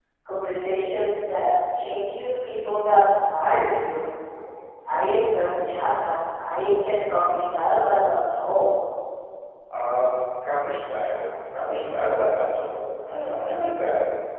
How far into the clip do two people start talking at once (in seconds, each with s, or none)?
none